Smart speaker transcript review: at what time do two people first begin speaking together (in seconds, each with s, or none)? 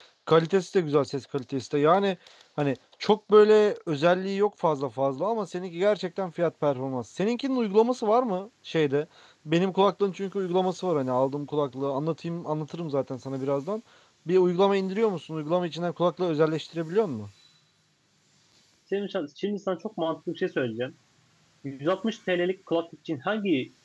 none